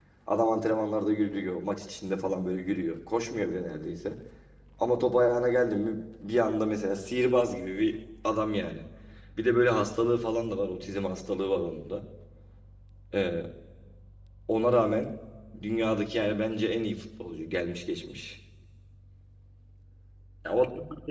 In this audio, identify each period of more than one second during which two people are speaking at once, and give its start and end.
none

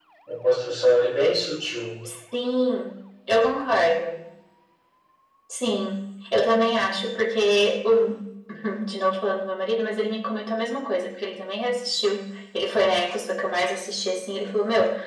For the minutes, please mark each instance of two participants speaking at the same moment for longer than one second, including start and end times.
none

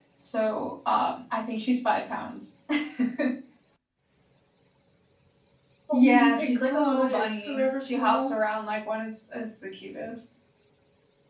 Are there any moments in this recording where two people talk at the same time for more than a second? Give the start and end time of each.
5.9-8.4

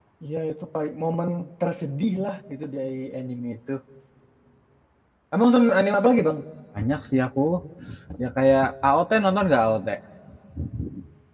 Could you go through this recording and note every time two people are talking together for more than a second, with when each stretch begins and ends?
none

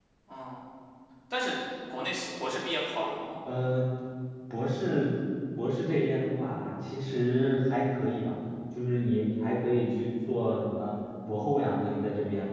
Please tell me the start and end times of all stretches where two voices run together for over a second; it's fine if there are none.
none

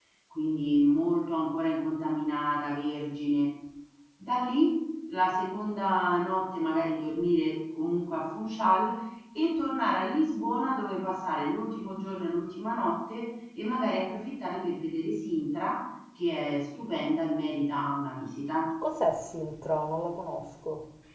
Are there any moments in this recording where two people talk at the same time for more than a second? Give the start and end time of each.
none

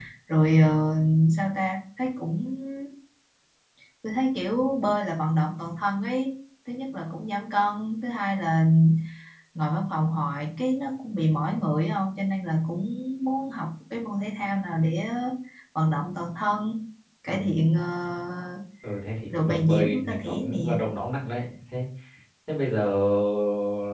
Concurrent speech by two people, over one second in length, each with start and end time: 19.4-20.8

